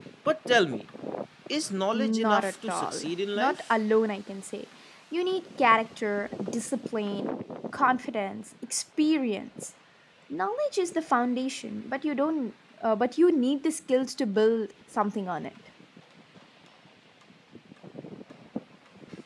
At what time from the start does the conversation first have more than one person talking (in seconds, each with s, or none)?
1.9 s